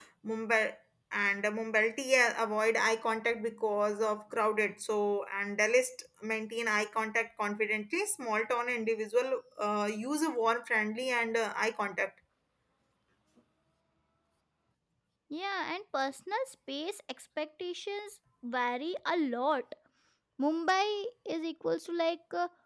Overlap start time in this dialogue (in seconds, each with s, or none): none